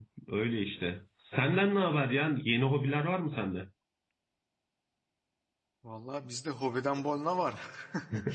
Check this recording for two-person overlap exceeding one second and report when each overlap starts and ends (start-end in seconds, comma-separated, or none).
none